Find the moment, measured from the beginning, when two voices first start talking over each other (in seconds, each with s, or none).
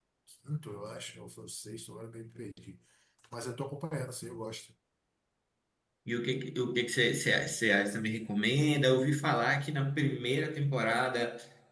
none